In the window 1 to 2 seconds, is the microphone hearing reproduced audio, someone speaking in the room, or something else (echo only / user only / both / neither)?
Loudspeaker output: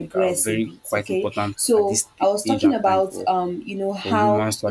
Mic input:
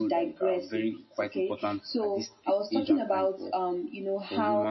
echo only